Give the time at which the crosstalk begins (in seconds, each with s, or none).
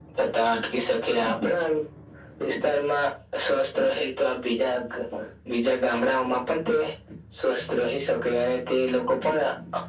none